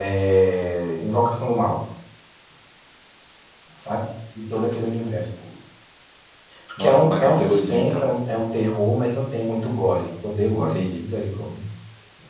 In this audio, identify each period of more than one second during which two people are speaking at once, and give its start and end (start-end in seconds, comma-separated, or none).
6.8-8.1